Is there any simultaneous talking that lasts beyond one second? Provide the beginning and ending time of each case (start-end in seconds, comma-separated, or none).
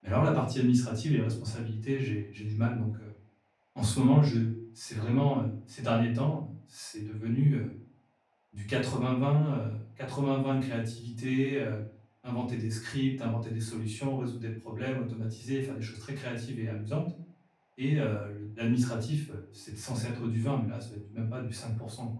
none